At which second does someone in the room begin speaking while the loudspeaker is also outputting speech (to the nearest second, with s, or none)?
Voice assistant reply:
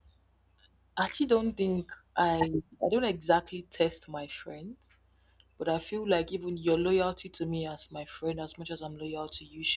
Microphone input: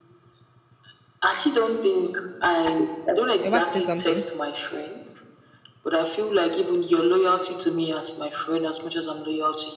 3 s